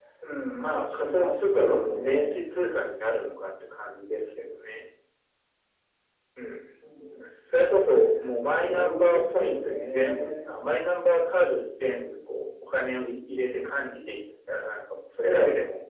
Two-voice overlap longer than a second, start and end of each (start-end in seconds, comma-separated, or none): 0.8-2.3, 8.6-10.6